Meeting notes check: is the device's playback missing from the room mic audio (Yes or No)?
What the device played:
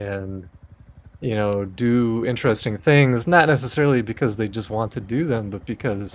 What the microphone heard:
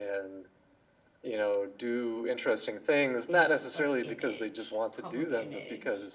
No